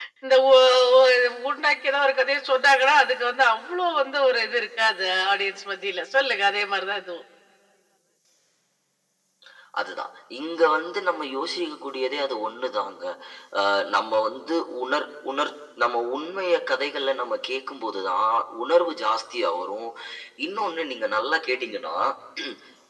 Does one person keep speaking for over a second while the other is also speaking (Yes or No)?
No